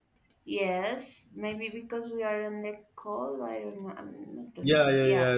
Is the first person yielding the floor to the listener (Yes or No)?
Yes